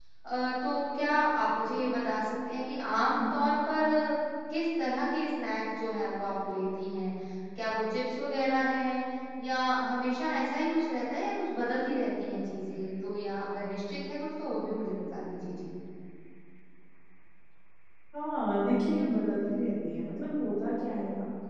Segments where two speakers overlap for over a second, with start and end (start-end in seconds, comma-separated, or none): none